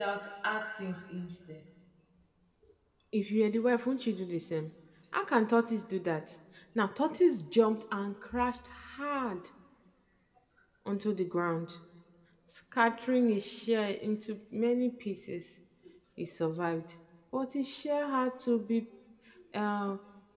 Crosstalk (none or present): none